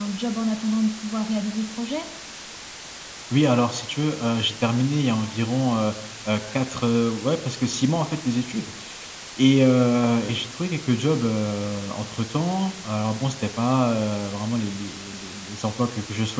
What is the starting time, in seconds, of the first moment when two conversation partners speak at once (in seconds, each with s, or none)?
none